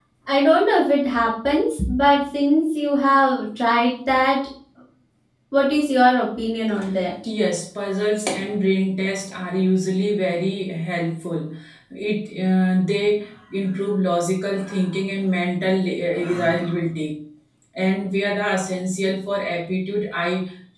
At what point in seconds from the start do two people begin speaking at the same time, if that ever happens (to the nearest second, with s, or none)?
none